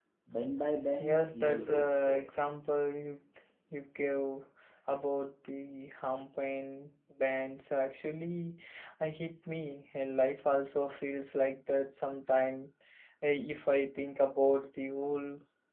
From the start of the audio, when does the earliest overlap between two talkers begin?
1.0 s

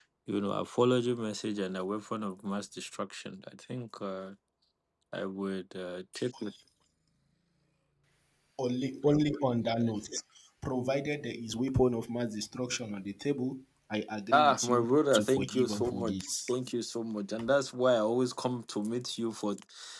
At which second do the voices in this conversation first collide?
14.3 s

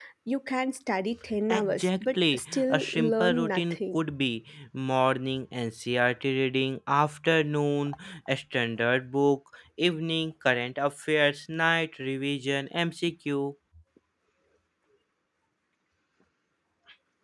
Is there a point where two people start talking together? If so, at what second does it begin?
1.3 s

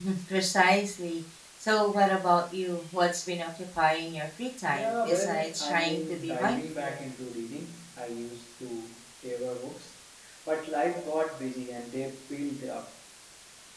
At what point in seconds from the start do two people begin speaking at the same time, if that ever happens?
4.7 s

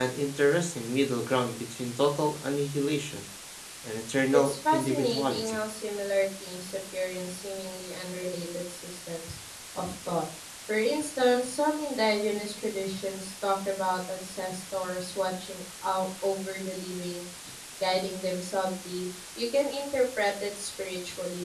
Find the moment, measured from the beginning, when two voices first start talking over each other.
4.3 s

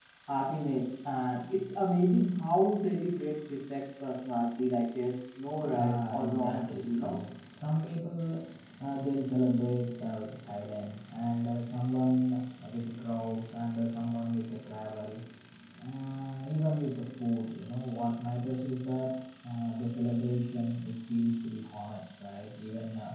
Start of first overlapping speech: 5.5 s

